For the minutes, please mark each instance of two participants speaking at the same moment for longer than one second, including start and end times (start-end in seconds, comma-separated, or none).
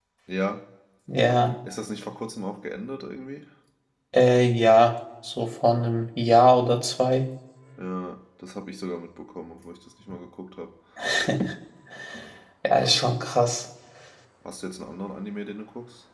none